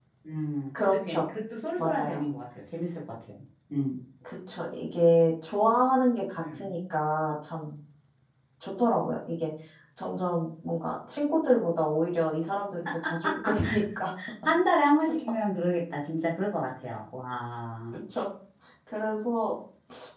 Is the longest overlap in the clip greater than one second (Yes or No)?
No